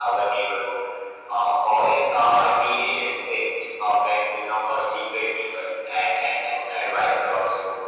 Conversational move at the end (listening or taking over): listening